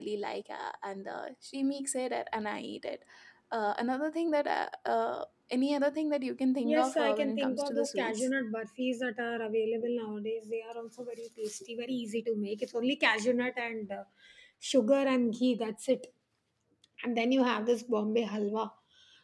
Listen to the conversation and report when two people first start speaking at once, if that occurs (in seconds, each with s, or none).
6.6 s